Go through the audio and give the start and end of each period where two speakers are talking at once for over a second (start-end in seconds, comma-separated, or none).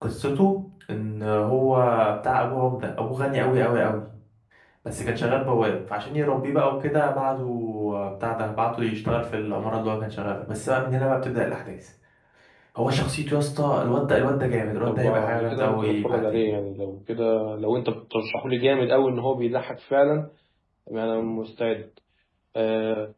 14.9-16.4